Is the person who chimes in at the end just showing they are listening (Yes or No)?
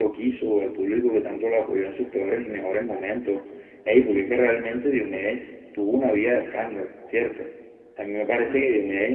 Yes